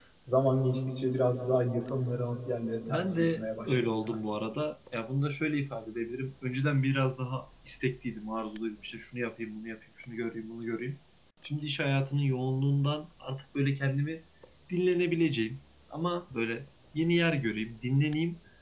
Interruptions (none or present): present